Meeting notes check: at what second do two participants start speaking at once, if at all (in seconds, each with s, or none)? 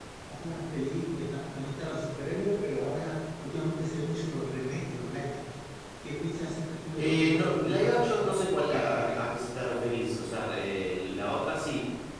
7.0 s